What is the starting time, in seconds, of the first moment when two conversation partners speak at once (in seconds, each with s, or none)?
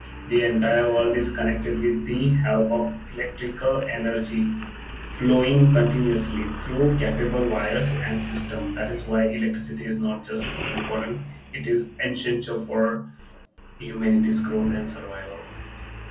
none